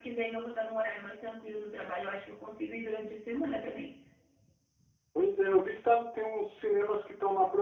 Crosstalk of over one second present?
No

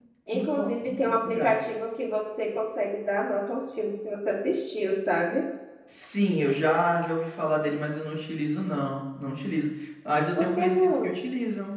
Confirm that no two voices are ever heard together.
No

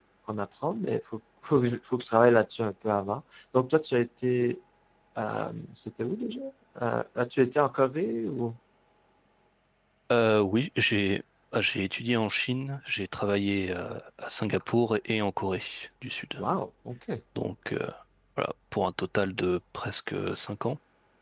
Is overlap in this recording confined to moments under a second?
Yes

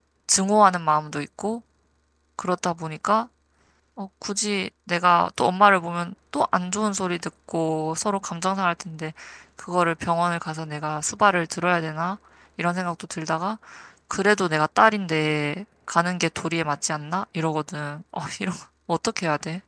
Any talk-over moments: No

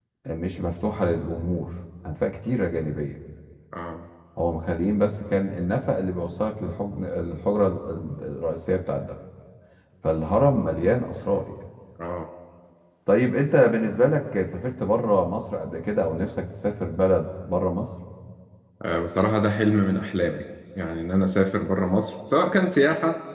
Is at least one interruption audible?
No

